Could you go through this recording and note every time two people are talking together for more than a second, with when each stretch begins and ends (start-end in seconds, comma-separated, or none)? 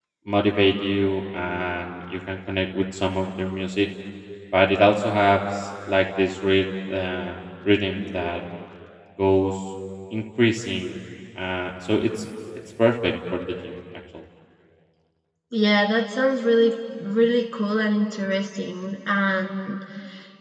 none